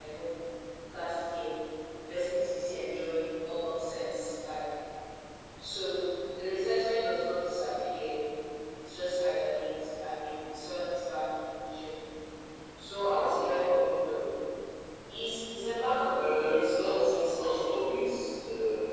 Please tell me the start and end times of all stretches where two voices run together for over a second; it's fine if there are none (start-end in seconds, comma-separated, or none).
16.2-18.1